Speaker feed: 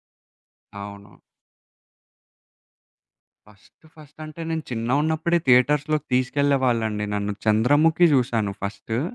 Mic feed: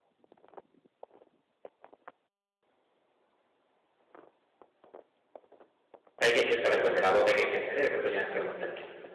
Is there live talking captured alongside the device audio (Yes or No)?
Yes